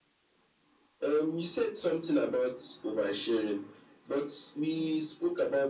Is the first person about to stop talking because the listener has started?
No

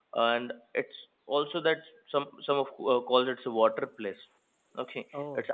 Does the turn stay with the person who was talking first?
Yes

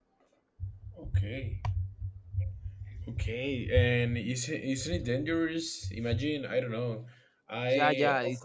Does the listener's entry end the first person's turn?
Yes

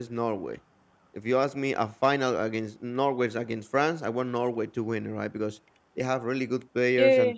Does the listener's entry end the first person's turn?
No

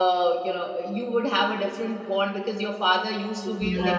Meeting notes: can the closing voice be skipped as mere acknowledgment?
No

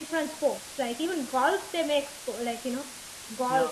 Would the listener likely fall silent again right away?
Yes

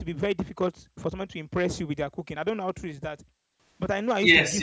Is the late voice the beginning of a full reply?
Yes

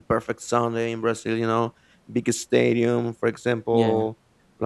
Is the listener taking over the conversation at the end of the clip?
No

